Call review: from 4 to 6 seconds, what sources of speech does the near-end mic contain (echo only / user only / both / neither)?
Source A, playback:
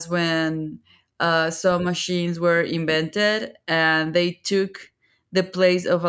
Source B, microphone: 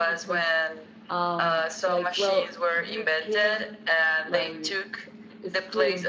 both